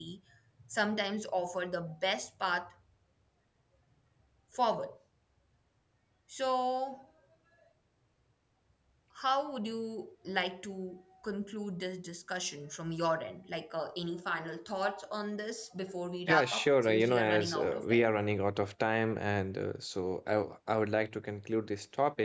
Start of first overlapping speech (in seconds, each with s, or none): 16.3 s